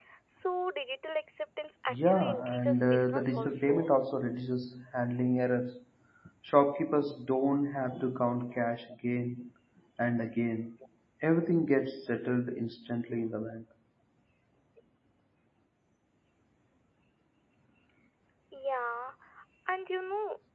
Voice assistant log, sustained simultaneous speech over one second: present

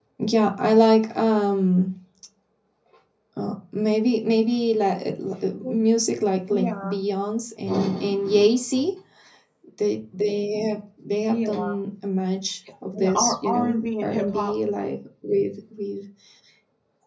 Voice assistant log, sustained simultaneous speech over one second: present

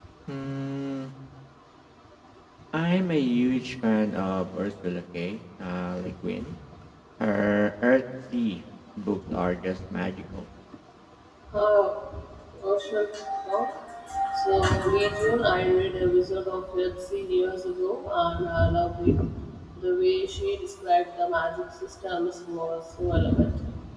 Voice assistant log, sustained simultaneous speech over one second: none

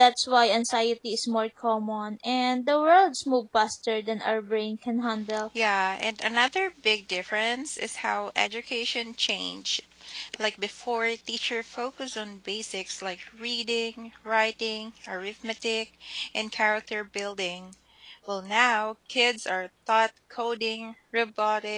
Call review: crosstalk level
none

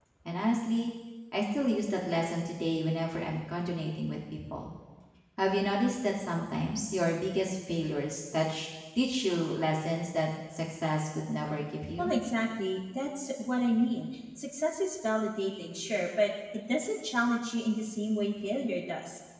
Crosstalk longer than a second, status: none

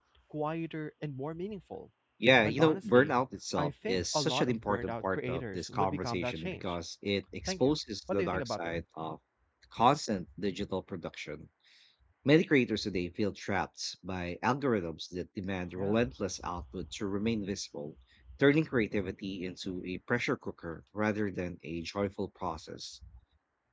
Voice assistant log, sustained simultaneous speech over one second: present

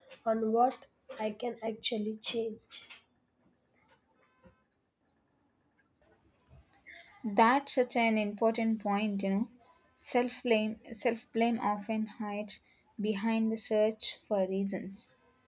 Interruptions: none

